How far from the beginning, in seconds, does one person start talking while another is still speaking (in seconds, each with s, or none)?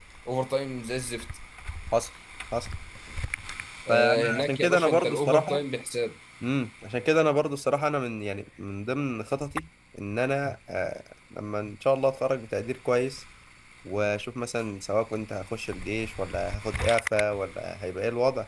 3.9 s